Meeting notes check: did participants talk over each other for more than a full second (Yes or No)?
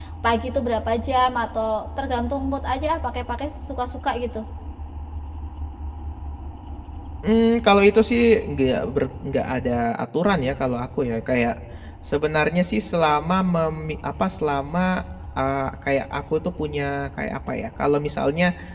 No